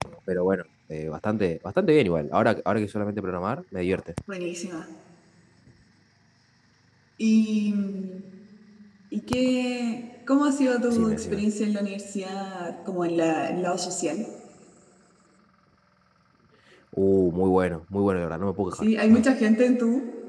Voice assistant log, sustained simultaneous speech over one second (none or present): none